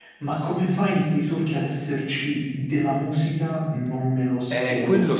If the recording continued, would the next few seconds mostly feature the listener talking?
Yes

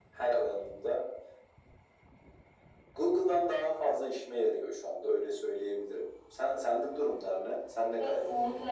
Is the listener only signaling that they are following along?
No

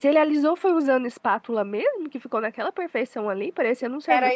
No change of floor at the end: No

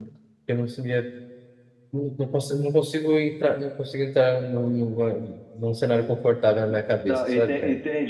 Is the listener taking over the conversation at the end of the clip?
Yes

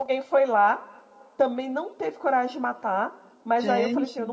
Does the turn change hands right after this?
No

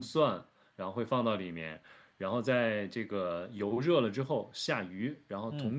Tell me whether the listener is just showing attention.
Yes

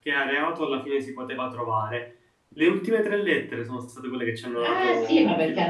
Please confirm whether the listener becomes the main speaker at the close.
Yes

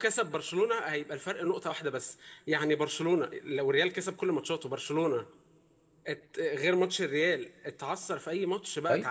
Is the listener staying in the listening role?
No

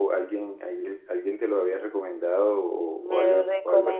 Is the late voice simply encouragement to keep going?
No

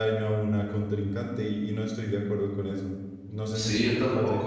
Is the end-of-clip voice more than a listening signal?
Yes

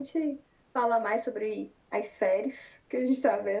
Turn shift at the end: No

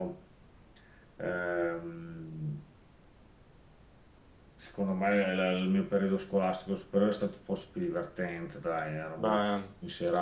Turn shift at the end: No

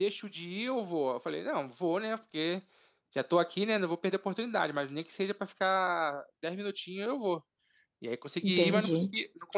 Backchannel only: Yes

